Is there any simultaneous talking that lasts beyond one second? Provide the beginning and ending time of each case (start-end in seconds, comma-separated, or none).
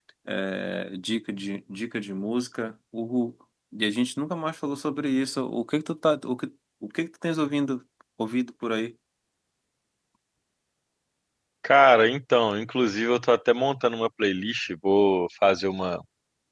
none